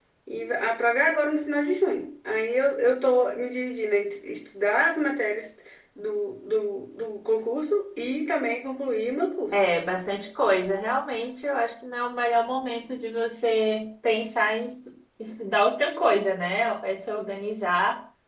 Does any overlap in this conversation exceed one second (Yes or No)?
No